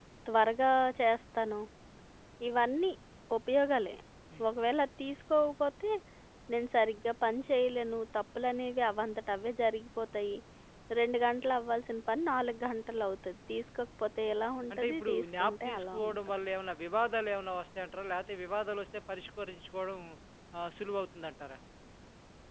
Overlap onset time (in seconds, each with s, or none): 14.7 s